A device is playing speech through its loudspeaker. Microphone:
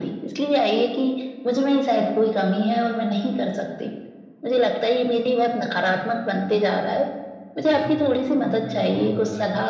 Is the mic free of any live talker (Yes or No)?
No